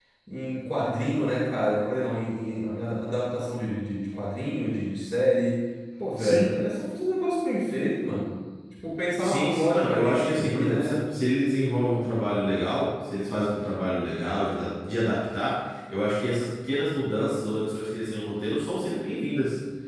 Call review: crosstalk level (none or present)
present